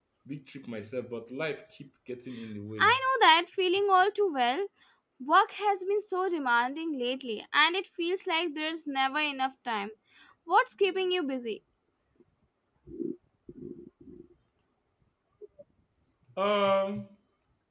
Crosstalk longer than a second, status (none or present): none